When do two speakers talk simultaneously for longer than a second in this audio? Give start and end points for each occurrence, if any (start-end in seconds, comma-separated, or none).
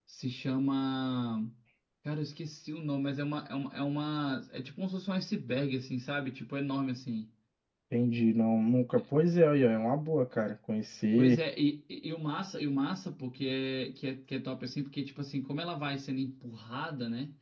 none